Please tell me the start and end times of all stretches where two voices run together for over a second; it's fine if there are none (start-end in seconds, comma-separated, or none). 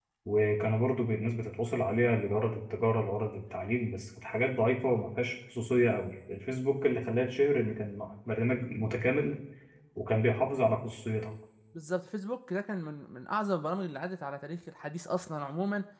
none